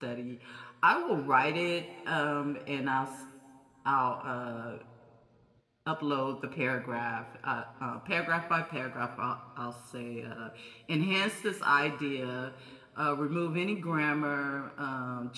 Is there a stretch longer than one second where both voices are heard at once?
No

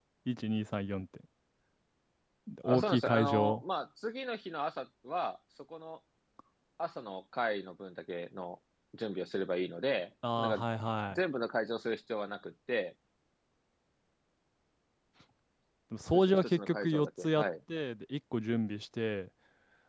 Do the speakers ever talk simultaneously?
Yes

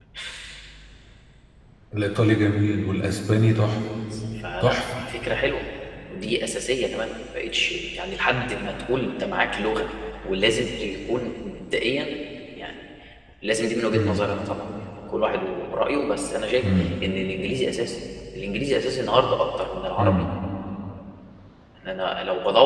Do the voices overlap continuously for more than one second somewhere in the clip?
No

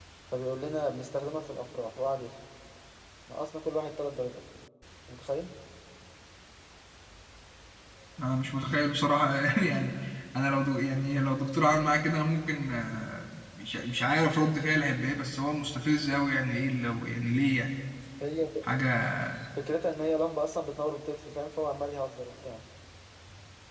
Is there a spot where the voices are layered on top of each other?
No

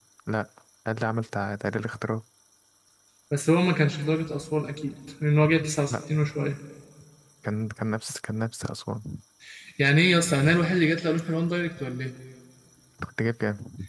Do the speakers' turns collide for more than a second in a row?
No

